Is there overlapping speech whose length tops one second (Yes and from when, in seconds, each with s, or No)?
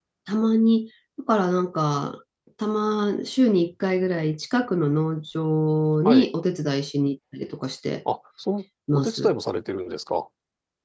No